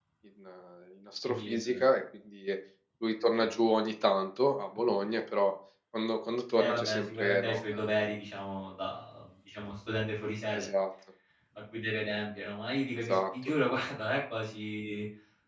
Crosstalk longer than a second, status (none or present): present